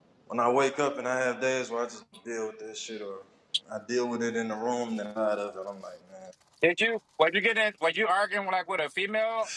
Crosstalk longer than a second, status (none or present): none